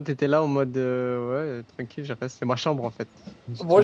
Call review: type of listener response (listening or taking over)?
taking over